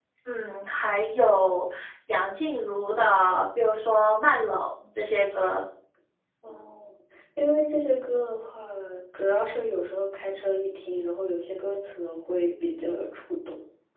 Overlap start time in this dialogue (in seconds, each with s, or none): none